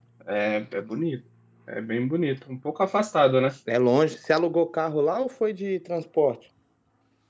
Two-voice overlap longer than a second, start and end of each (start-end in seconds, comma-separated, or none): none